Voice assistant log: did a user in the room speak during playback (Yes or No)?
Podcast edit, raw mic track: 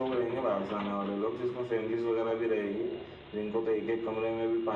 No